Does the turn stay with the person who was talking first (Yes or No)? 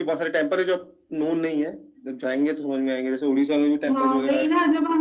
No